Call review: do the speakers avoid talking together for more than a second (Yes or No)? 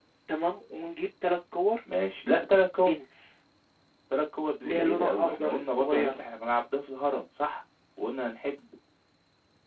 No